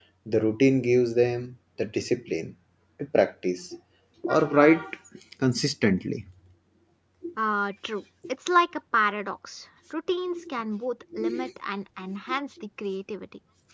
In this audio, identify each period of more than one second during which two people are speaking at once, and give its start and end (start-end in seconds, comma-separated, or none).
none